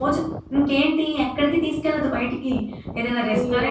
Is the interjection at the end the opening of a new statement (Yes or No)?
No